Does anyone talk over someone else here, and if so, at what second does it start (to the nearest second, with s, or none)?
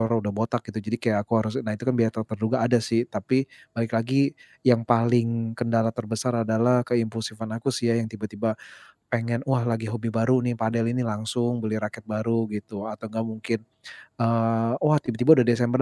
none